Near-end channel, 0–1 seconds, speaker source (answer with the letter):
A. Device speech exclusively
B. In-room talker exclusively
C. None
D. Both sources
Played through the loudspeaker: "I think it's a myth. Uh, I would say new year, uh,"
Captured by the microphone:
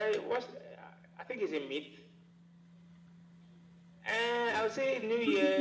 A